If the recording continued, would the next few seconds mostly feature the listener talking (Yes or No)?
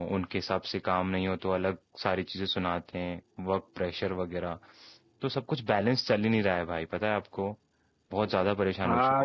Yes